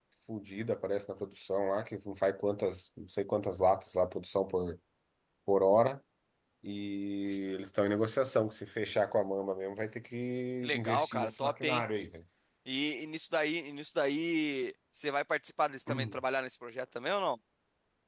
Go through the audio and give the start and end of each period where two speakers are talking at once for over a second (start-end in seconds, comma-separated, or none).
10.6-11.8